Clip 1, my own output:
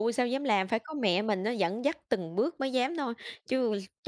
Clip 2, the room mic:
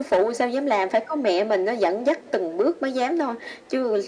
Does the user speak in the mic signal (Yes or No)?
No